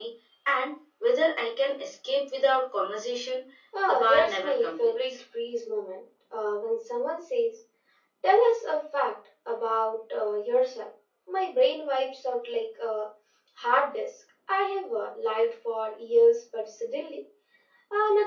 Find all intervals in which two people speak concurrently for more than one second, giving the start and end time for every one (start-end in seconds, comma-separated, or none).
3.9-5.2